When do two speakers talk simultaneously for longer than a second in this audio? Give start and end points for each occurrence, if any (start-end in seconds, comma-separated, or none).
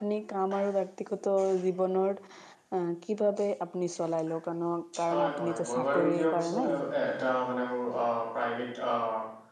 5.1-6.6